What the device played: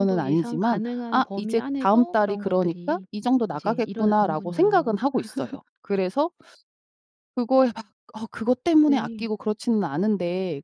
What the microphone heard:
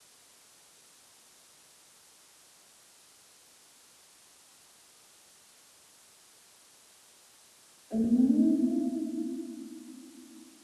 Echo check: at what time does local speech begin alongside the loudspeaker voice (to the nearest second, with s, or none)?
8 s